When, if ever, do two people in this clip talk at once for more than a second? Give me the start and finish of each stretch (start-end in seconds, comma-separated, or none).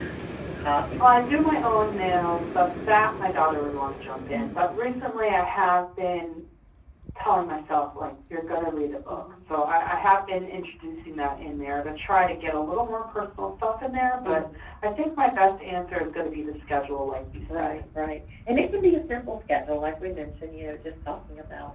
none